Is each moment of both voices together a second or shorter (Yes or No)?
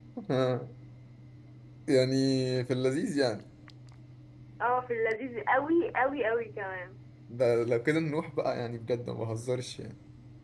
Yes